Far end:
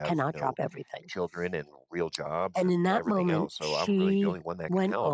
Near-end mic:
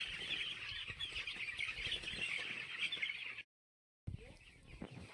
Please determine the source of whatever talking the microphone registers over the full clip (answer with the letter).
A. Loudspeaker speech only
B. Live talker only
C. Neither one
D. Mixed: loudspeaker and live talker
C